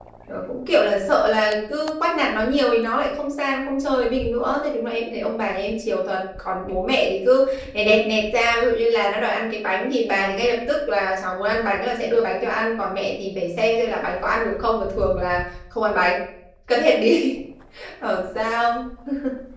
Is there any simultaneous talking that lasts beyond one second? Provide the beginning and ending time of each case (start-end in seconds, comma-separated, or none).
none